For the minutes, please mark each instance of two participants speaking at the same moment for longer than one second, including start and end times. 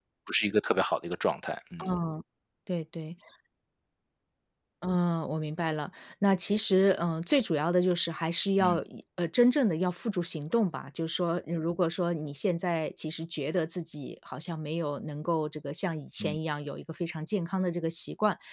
none

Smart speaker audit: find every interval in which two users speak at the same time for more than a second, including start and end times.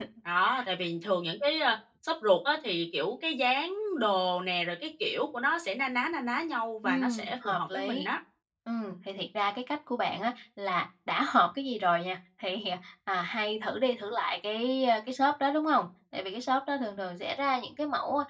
6.8-8.1

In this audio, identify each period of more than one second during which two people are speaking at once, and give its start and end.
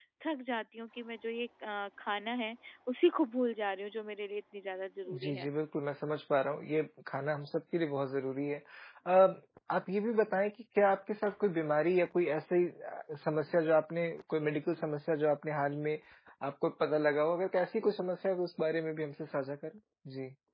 none

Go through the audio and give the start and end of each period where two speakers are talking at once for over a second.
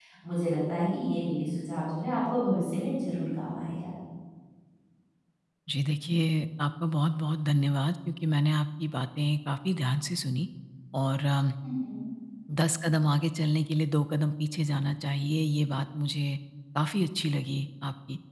none

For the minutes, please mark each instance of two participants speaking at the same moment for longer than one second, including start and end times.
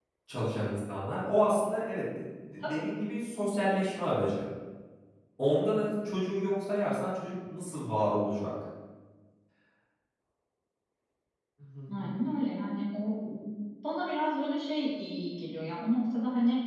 none

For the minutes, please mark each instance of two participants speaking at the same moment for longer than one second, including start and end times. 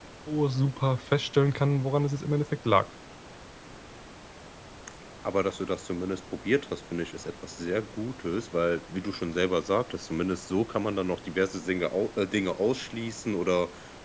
none

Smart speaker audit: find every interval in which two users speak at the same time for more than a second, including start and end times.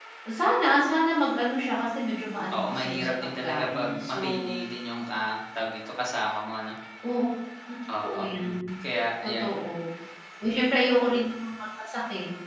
2.5-4.5

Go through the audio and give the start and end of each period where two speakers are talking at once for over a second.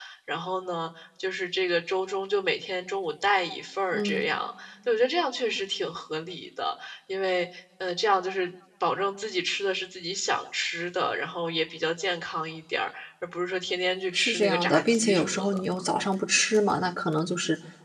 14.1-15.6

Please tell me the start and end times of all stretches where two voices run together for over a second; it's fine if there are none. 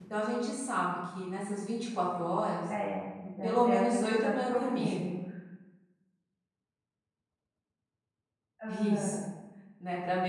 3.4-4.9

